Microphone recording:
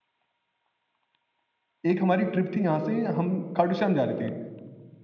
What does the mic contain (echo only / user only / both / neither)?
user only